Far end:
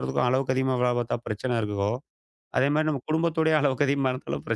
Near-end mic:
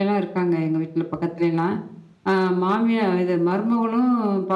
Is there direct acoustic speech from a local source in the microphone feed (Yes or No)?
Yes